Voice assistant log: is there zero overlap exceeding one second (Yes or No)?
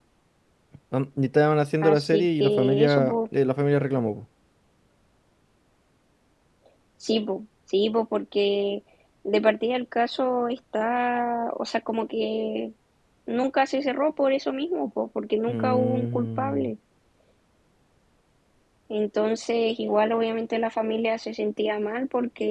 No